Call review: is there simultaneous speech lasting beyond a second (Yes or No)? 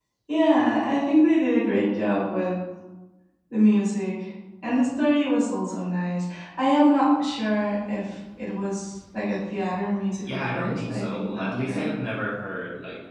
Yes